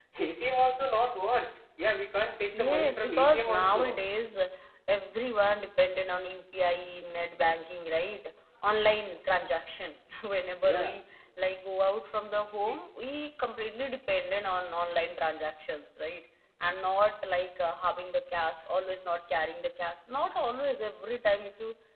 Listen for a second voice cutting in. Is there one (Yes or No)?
Yes